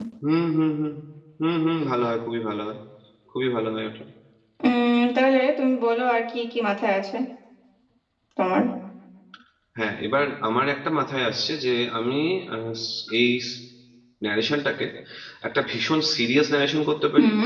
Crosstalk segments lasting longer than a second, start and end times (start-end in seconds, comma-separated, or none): none